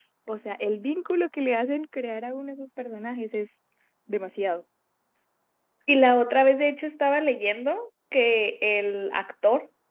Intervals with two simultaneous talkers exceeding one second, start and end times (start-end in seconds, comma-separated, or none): none